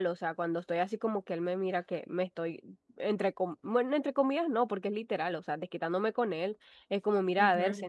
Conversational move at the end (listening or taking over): listening